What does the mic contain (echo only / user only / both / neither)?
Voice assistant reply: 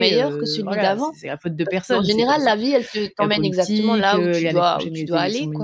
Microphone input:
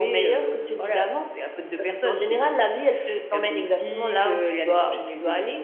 echo only